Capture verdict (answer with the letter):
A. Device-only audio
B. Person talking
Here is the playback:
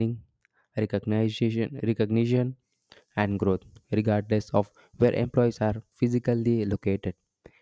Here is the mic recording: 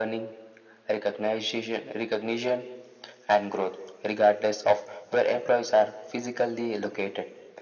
A